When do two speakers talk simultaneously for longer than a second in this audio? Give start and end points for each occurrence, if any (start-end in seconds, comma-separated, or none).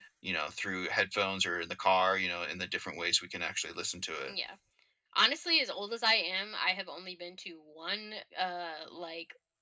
none